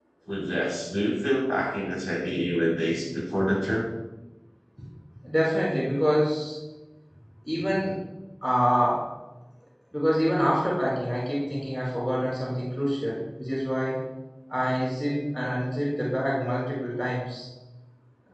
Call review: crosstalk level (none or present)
none